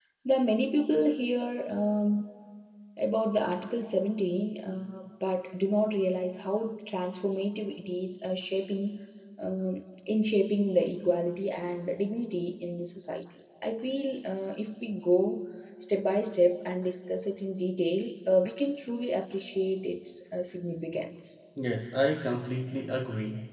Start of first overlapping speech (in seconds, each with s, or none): none